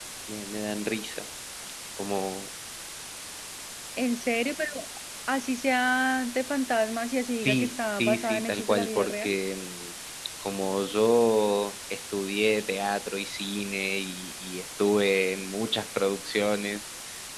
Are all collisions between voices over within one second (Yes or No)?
No